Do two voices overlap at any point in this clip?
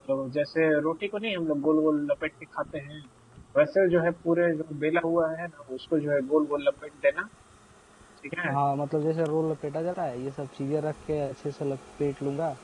No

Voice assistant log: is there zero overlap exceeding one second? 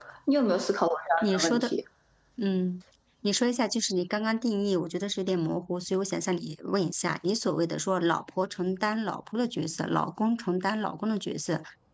Yes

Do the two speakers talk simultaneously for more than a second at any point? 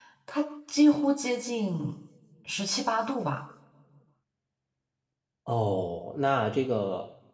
No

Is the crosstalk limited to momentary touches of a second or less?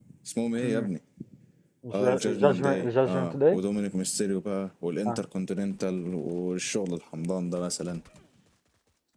No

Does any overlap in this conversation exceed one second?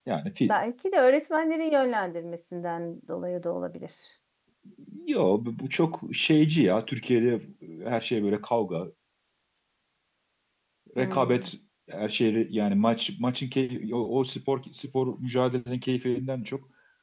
No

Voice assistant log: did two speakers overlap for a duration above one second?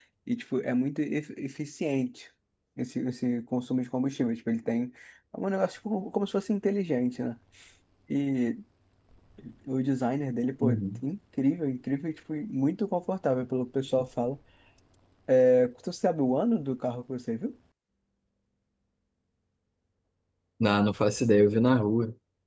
No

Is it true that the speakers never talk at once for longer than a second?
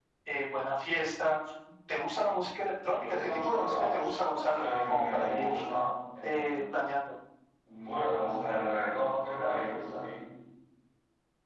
No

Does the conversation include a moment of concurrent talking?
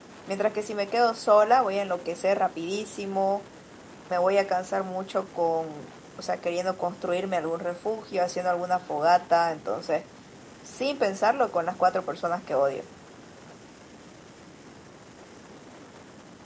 No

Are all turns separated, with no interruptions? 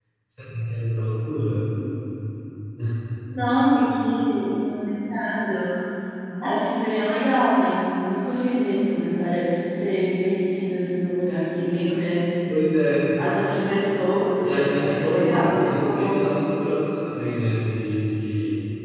No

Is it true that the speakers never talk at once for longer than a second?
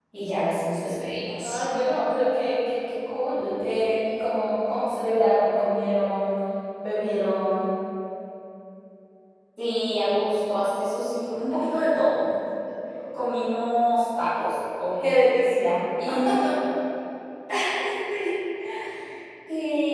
Yes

